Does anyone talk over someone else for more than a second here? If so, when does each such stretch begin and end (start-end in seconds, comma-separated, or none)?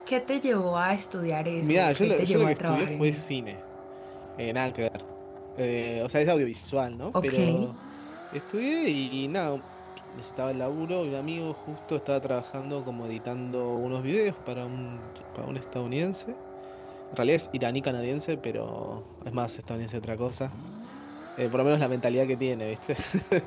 1.6-3.3